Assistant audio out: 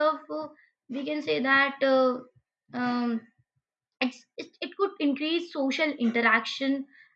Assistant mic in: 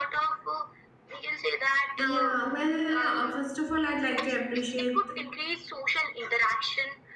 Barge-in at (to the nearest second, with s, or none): 2 s